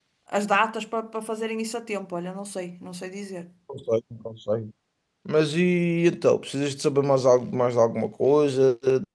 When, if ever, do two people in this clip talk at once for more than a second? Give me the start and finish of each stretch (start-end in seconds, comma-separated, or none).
none